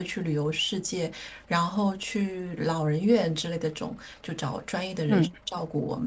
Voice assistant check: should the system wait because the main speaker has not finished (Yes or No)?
Yes